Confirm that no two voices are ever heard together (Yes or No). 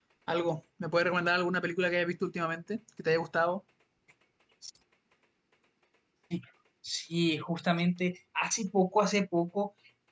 Yes